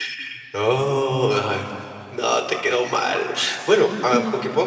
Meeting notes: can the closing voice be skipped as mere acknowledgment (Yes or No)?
Yes